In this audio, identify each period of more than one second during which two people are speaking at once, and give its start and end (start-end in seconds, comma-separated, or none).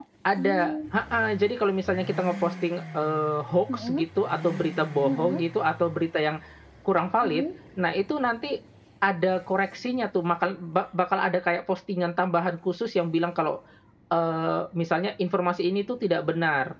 none